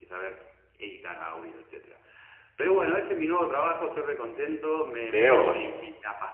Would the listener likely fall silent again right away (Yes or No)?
Yes